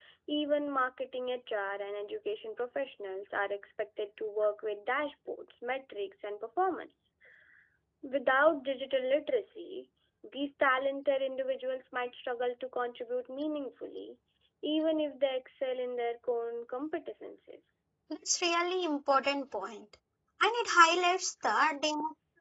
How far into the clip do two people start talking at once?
none

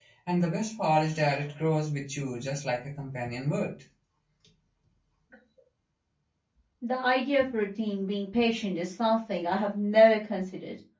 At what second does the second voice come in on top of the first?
none

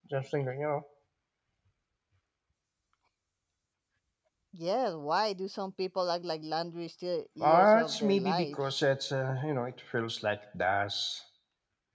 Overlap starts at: 7.4 s

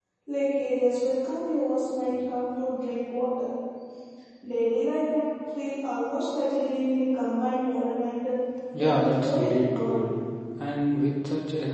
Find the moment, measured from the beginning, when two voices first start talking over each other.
8.8 s

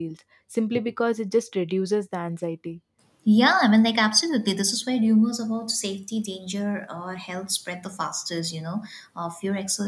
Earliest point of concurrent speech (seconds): none

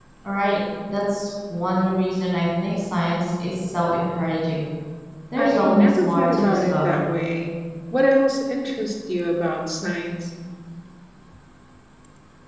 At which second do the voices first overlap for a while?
5.4 s

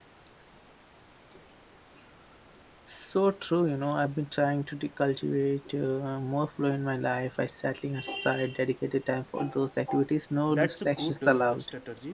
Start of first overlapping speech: 10.5 s

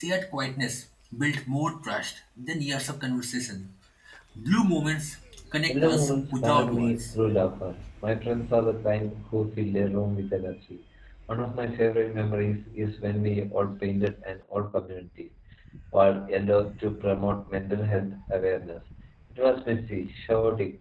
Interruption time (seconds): 5.7 s

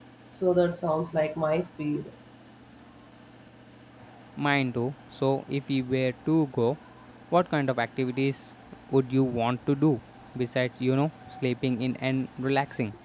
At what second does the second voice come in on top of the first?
none

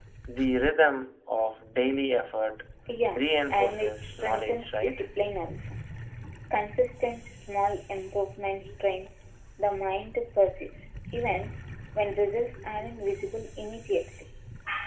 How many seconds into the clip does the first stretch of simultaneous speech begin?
3.1 s

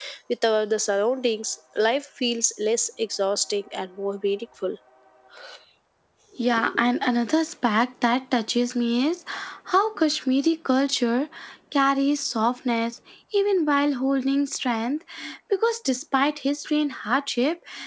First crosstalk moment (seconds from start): none

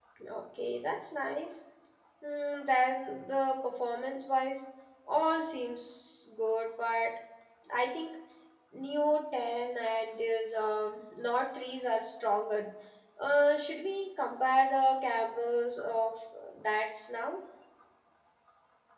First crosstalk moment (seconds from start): none

